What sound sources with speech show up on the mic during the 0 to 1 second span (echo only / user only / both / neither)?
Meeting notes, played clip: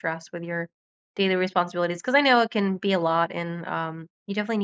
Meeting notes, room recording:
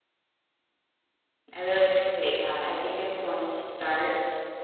neither